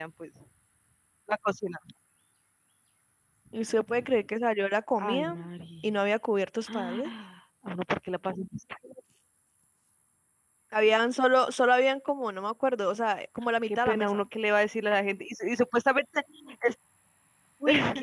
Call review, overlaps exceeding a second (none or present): none